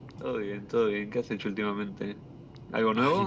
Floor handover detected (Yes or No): Yes